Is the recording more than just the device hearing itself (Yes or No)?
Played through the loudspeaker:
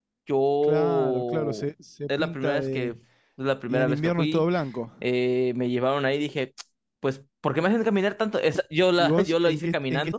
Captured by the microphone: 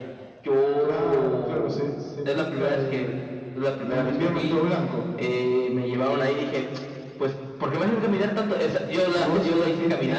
No